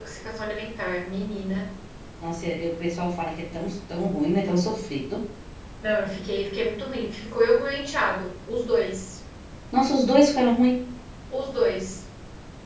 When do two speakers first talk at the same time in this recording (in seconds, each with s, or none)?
none